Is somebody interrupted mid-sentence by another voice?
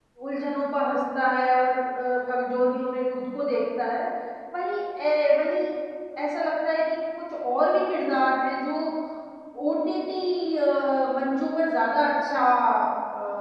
No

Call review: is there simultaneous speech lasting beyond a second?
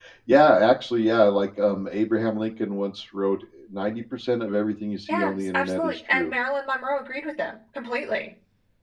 Yes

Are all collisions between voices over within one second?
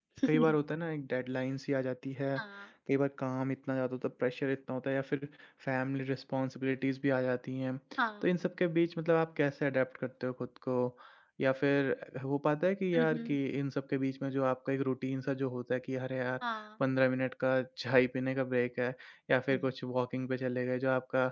Yes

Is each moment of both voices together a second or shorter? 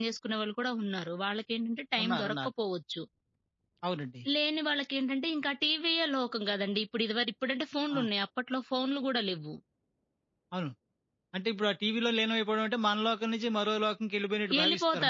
Yes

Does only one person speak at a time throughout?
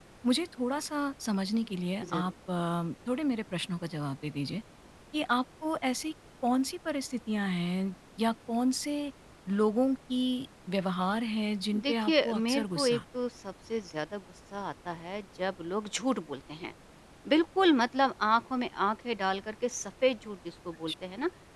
No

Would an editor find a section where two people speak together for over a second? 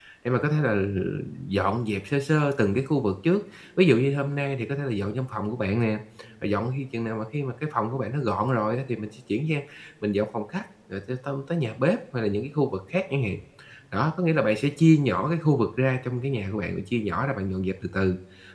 No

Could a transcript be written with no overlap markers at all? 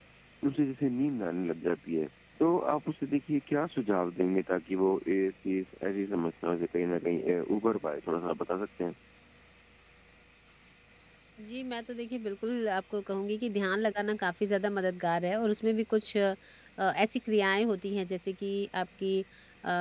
Yes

